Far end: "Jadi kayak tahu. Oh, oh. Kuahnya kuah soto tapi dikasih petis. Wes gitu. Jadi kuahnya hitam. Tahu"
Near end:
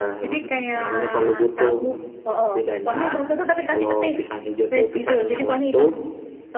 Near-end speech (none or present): present